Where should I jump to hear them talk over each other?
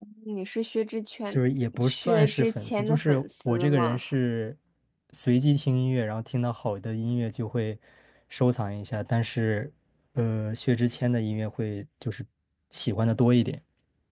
2 s

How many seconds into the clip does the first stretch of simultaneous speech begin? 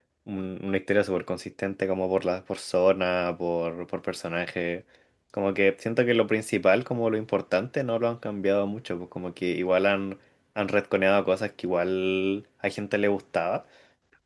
none

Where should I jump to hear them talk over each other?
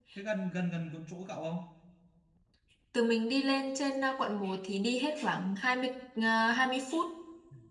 none

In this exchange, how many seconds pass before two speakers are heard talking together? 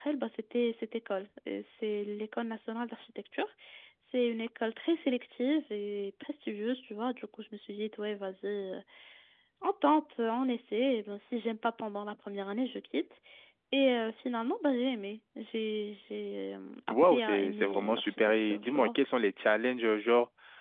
17 s

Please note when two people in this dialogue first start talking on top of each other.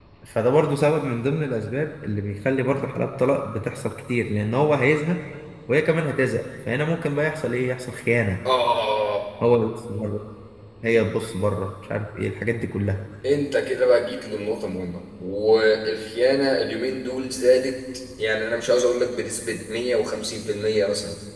none

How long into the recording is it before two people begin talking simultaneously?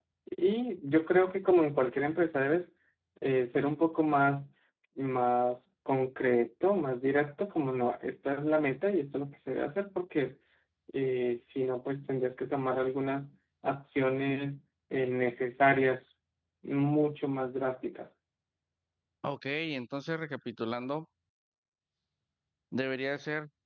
none

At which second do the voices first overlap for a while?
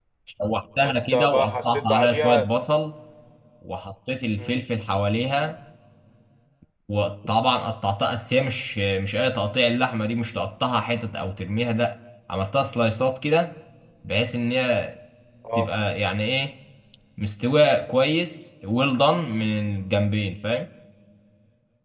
1 s

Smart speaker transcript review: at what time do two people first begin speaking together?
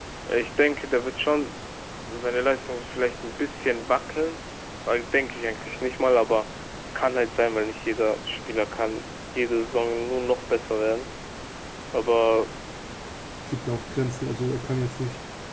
none

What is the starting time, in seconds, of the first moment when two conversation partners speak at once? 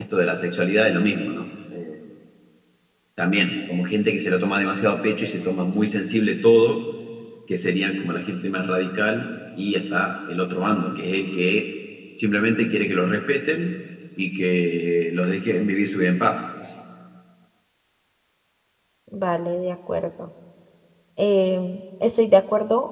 none

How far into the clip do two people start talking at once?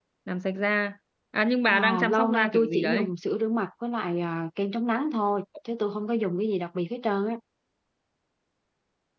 2 s

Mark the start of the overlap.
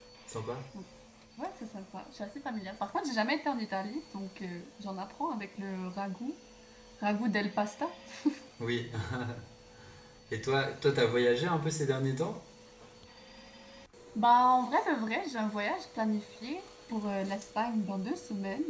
none

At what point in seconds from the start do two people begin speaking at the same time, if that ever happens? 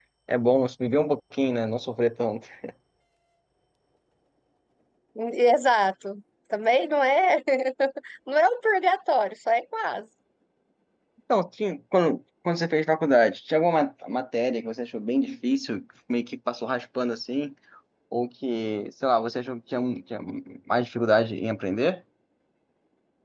none

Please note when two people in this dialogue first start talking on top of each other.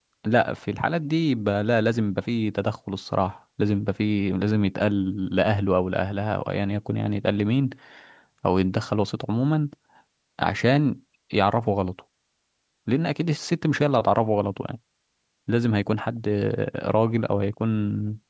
none

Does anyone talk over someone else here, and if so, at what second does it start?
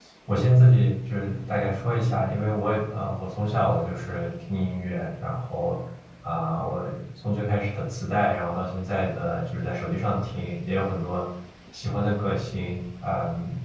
none

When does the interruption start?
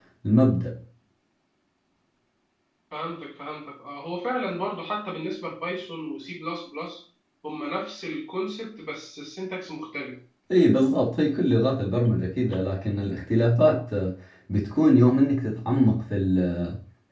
none

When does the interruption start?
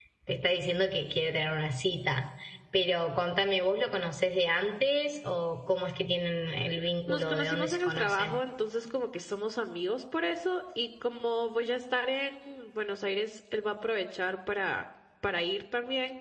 7 s

